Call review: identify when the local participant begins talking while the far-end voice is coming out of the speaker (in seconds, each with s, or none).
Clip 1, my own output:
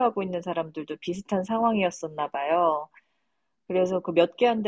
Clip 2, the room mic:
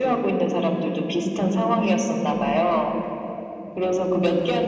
none